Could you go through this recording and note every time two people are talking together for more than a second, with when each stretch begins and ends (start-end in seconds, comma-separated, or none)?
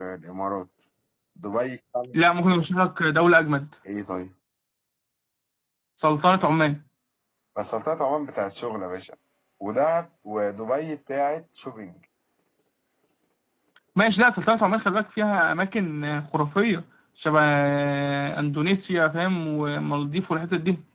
none